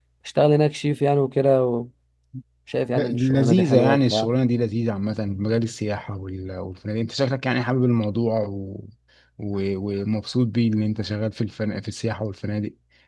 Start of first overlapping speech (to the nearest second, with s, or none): 3 s